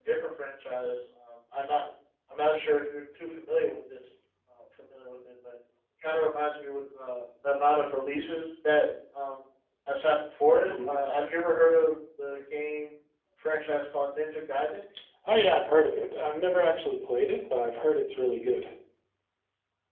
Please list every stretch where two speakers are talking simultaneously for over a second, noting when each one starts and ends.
none

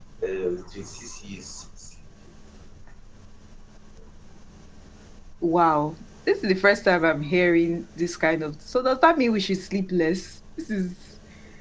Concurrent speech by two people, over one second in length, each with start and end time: none

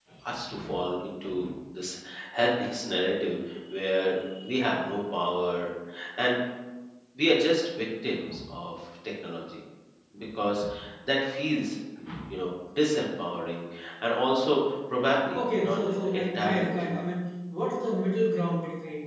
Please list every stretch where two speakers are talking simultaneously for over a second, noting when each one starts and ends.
15.4-17.0

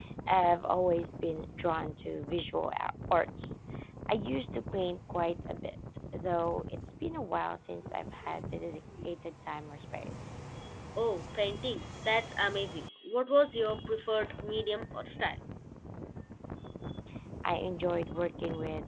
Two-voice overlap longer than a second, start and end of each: none

